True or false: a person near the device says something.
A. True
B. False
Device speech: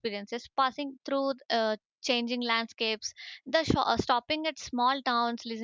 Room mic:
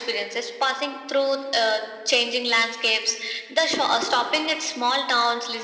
B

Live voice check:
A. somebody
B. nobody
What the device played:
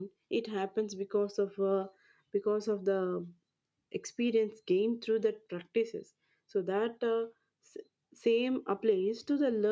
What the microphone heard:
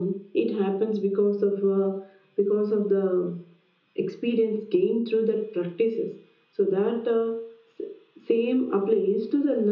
B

